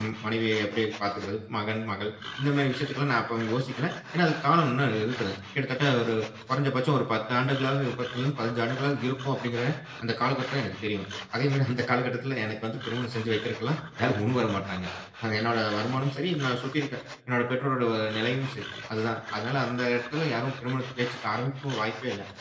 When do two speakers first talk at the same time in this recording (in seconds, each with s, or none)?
none